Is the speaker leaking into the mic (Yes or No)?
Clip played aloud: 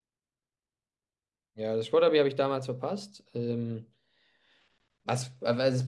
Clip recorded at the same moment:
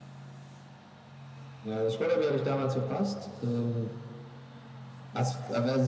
Yes